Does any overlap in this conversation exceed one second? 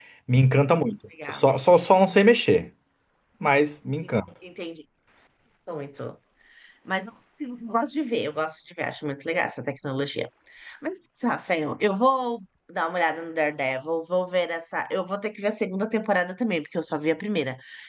No

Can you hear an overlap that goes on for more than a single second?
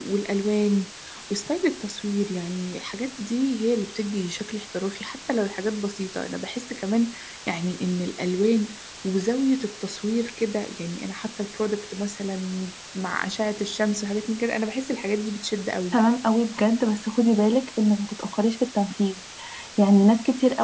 No

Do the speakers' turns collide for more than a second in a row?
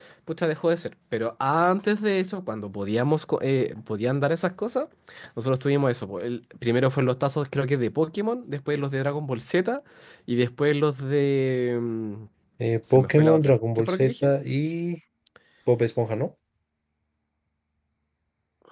Yes, from 12.9 s

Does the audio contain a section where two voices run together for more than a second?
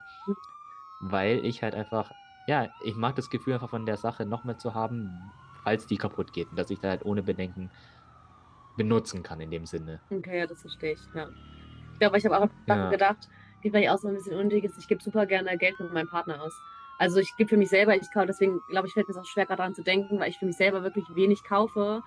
No

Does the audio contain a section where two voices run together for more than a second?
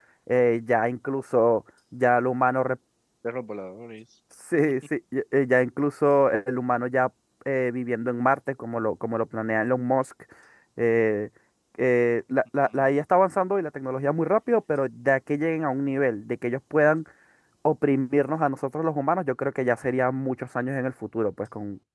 No

